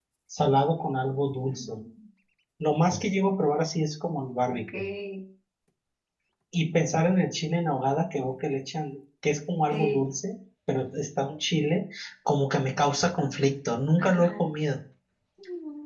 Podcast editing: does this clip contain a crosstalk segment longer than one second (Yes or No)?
No